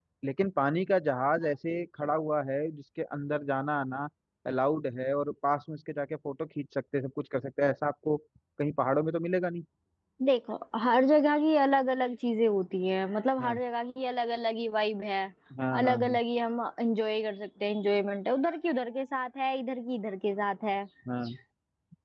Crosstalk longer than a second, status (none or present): none